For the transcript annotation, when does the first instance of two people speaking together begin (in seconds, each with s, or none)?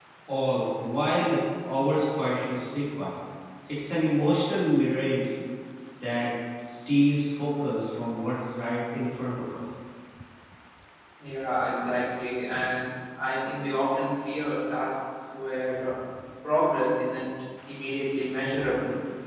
none